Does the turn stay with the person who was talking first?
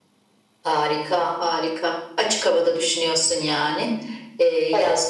Yes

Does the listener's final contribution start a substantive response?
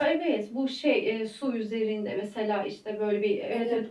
Yes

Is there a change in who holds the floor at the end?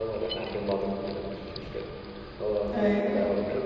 No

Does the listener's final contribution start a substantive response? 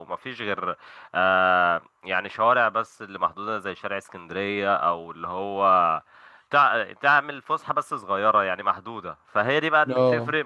No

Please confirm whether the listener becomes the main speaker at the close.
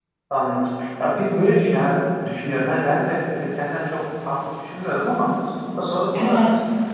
No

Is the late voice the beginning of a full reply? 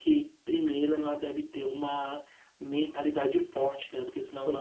No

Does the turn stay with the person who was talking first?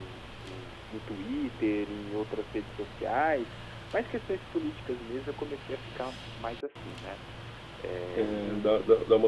No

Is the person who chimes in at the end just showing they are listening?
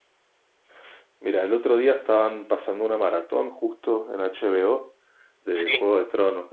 Yes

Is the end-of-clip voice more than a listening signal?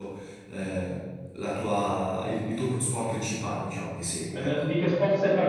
Yes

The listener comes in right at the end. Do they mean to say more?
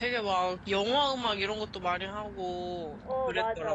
Yes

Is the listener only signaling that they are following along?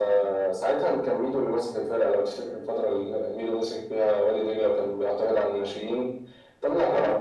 Yes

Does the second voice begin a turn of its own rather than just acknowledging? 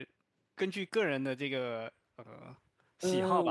Yes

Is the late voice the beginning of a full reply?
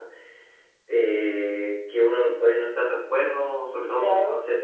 No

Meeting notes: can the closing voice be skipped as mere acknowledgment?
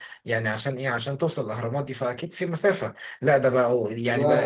Yes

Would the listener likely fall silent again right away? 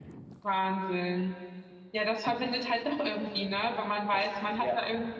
Yes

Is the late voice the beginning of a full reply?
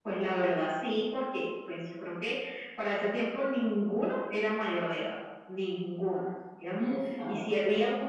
No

